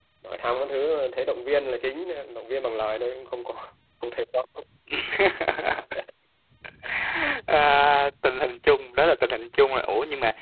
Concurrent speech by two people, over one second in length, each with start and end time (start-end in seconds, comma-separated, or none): none